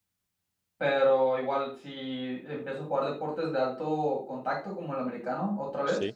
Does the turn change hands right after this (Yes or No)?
No